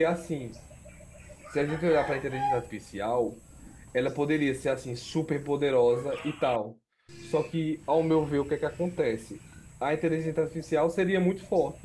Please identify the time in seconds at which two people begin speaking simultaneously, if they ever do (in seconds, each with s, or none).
none